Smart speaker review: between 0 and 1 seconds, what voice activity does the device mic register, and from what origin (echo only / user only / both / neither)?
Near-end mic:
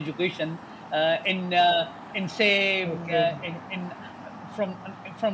echo only